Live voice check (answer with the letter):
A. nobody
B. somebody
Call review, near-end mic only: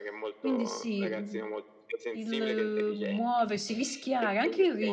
B